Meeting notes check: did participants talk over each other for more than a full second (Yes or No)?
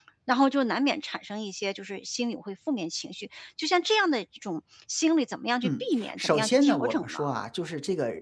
Yes